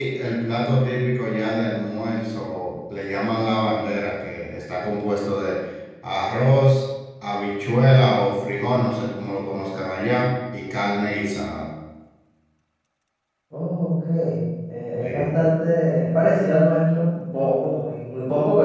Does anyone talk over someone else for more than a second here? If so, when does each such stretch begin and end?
none

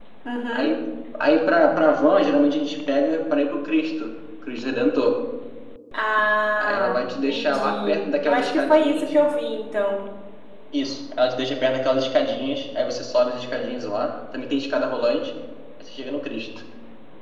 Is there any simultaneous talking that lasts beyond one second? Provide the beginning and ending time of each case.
6.6-9.1

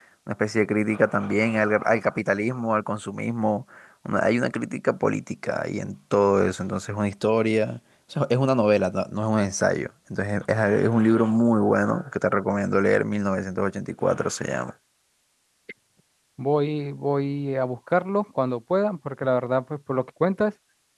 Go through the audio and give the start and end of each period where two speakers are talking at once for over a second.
none

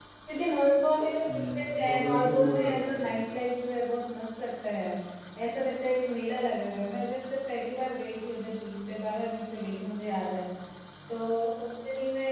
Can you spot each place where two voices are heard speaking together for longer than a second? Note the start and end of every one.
1.3-3.2

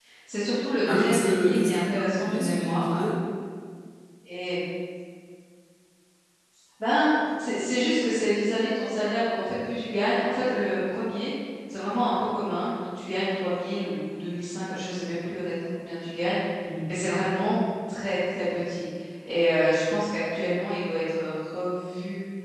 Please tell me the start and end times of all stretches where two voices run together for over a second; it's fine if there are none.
0.8-2.9

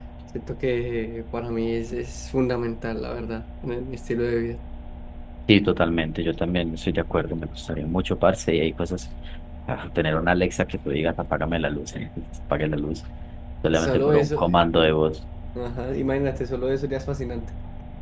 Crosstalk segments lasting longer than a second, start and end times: 13.7-15.0

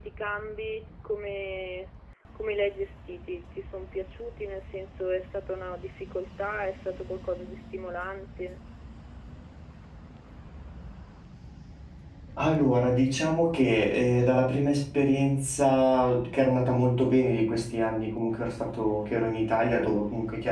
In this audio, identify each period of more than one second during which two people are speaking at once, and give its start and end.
none

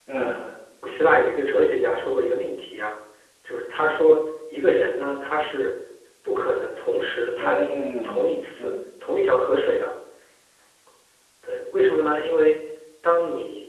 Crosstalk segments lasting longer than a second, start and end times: 7.4-8.7

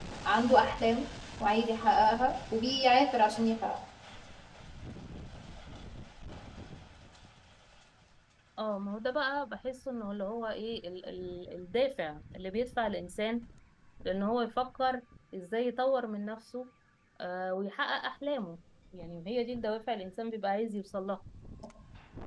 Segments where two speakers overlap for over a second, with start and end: none

